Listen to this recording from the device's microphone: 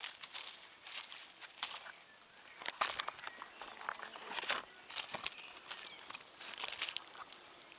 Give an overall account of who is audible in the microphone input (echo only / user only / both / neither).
neither